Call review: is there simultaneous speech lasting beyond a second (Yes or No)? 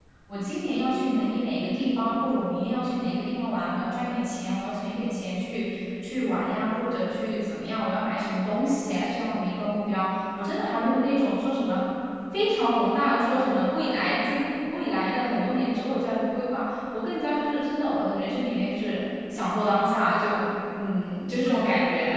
No